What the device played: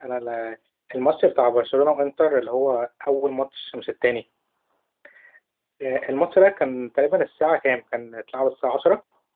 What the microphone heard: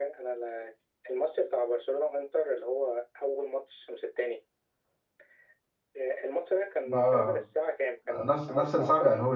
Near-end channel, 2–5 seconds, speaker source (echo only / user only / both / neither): echo only